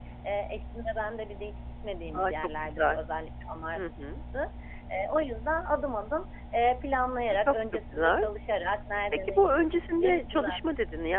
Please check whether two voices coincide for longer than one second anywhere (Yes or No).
Yes